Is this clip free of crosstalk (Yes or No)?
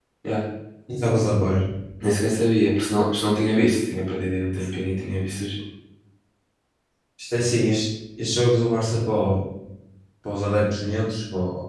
Yes